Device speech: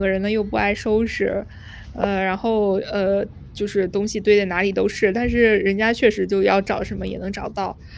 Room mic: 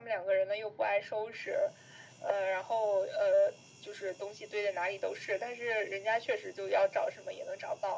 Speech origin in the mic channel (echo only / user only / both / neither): echo only